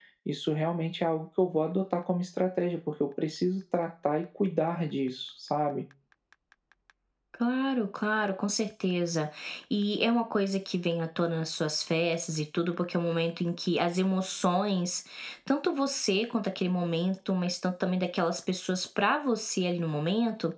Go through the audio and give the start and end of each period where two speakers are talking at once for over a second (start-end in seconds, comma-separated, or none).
none